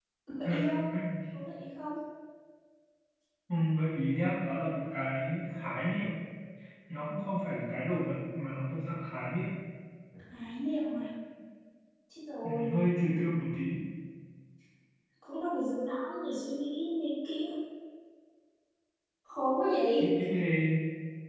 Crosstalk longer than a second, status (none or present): none